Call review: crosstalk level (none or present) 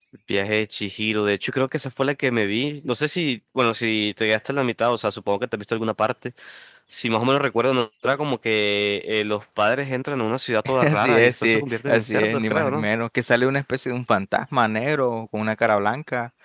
present